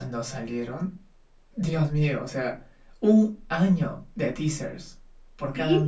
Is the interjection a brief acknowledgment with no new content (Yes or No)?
No